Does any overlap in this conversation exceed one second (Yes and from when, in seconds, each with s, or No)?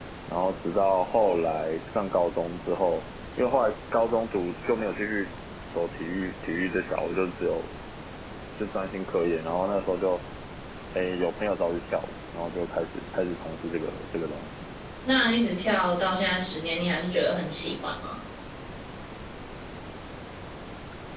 No